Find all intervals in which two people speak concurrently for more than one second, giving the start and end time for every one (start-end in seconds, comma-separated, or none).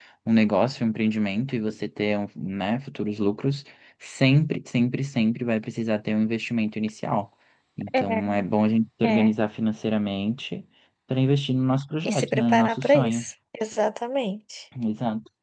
12.0-13.2